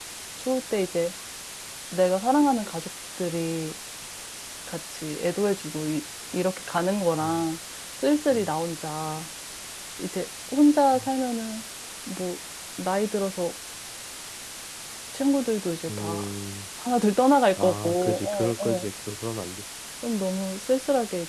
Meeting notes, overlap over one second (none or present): present